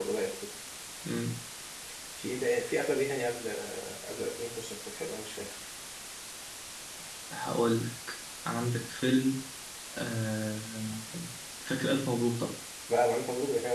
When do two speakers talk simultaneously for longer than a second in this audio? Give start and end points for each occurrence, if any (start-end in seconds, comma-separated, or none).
none